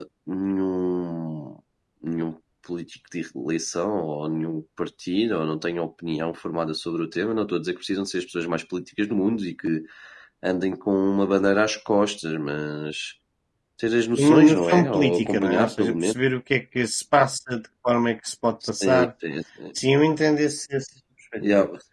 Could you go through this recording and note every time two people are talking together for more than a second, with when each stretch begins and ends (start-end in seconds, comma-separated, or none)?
14.2-16.1